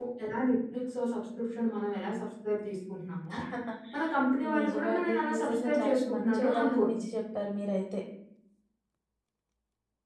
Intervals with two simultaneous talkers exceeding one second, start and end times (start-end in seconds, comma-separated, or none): 4.6-6.9